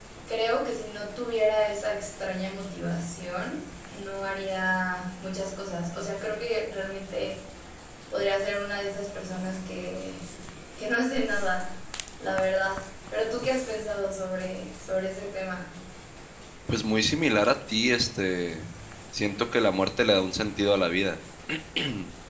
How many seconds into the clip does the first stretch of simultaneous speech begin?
none

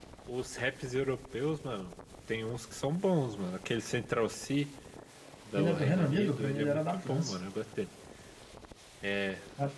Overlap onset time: 5.6 s

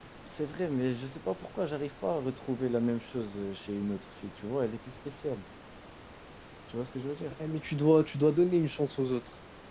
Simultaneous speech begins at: none

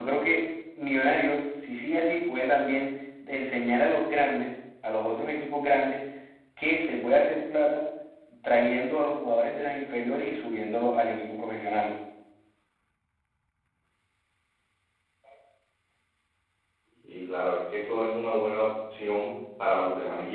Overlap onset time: none

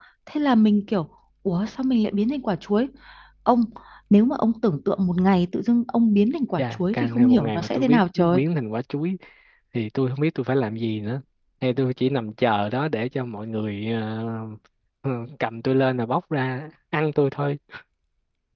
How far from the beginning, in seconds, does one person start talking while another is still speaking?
6.6 s

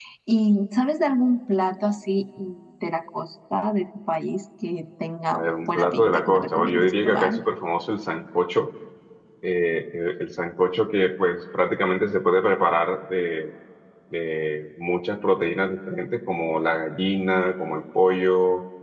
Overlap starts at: 5.3 s

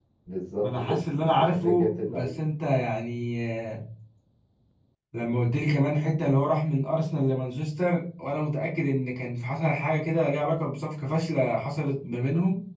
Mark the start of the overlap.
0.6 s

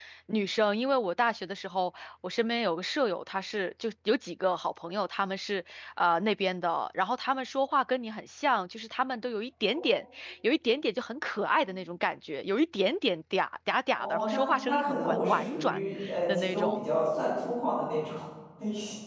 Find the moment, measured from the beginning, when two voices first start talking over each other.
14.0 s

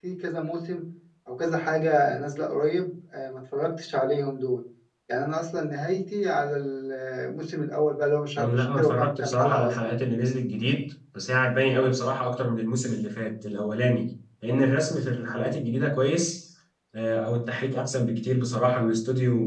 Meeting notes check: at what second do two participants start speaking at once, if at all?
8.4 s

